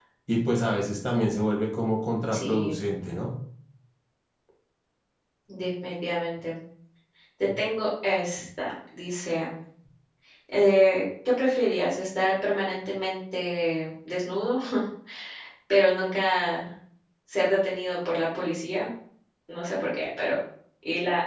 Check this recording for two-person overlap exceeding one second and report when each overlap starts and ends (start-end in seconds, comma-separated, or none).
none